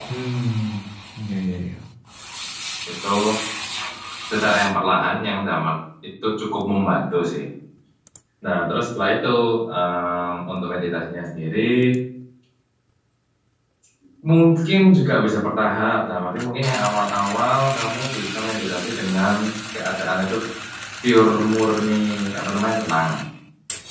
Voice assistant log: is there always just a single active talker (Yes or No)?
Yes